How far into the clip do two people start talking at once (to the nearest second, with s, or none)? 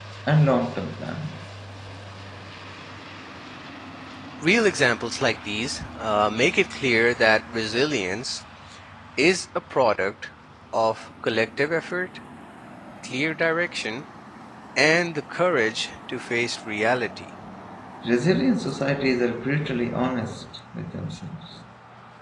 none